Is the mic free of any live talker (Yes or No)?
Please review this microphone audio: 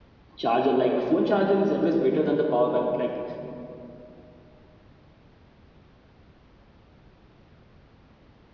No